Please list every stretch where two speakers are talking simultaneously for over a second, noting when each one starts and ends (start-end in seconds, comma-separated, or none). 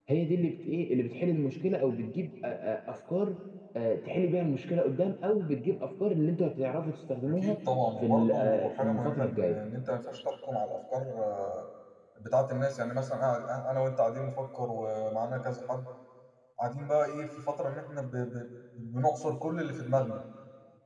8.0-9.6